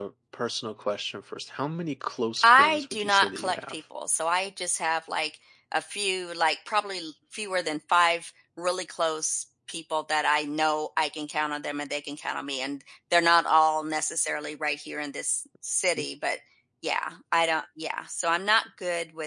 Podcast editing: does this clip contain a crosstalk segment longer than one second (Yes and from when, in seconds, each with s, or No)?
Yes, from 2.4 s